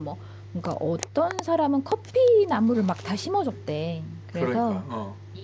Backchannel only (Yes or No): Yes